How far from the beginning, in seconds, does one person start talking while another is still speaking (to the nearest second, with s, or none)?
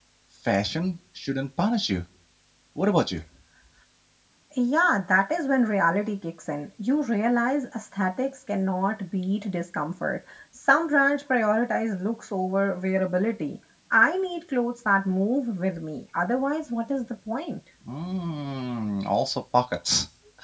none